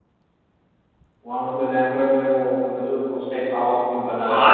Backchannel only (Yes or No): No